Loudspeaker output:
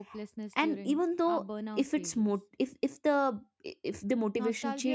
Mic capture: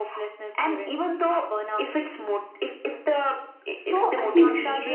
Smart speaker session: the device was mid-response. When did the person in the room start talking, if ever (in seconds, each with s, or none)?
3.7 s